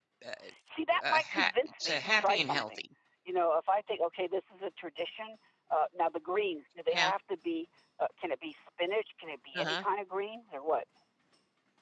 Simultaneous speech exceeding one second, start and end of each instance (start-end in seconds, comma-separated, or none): 1.1-2.9